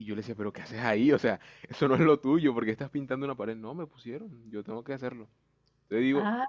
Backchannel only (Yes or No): No